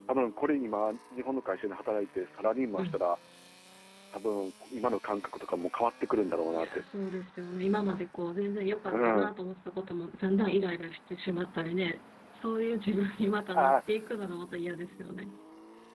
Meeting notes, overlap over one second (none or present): none